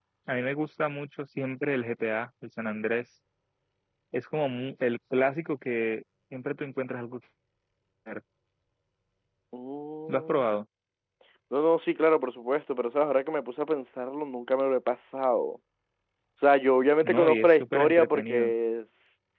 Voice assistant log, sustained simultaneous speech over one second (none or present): present